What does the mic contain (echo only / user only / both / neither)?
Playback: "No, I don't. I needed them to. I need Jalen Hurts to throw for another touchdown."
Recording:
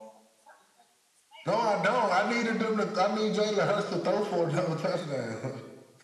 echo only